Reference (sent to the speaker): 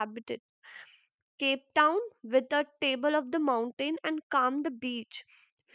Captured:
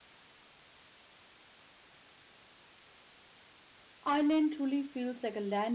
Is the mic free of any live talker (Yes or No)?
No